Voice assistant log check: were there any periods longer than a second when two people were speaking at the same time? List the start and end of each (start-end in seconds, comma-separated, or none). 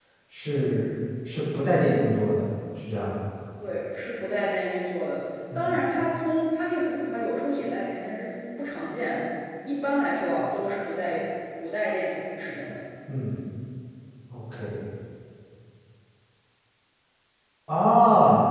none